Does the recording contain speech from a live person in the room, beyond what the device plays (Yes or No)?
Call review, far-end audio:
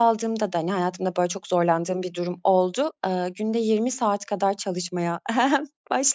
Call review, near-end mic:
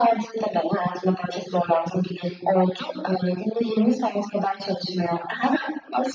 No